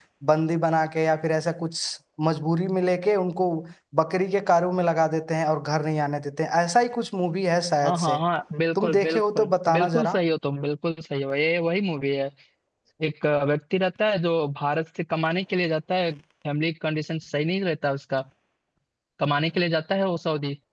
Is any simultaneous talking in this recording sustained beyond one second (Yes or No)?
Yes